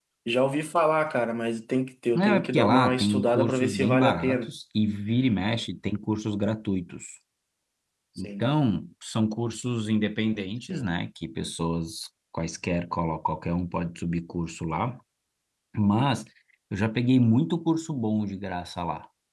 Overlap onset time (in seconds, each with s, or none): 2.1 s